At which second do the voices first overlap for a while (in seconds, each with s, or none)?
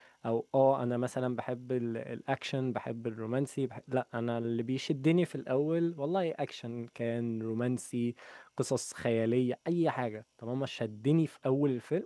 none